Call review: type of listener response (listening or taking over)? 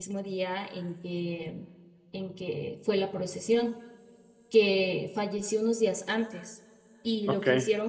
listening